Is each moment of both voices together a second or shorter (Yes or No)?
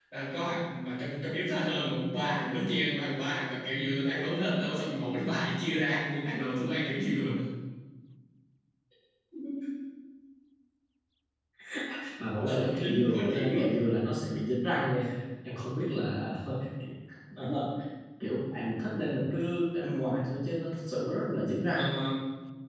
No